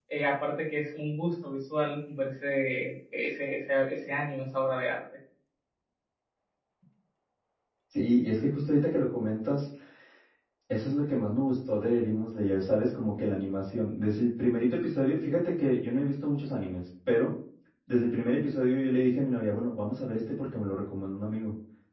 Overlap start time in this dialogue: none

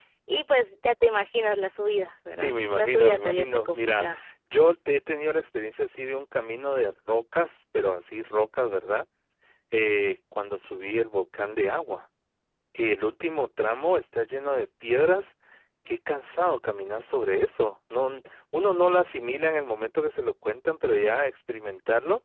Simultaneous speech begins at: 2.3 s

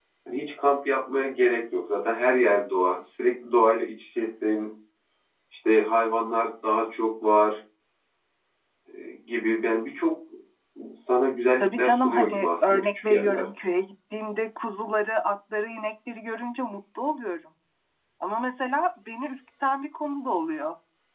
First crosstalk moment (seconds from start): 11.6 s

